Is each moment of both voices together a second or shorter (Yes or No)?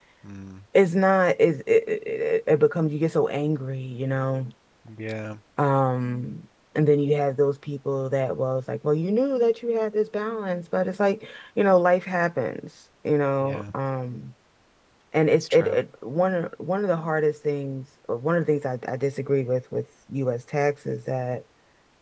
Yes